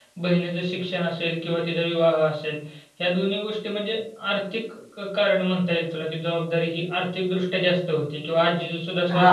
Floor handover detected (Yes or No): No